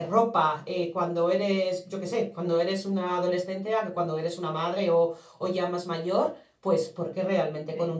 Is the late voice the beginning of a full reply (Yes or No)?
No